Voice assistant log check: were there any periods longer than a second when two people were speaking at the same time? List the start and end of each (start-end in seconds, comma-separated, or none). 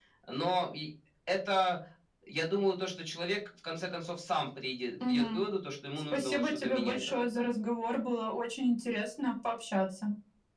6.1-7.5